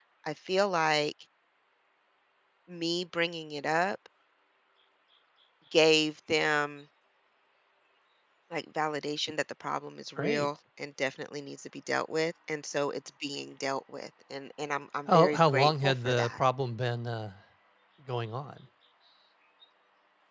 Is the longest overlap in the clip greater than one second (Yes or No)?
Yes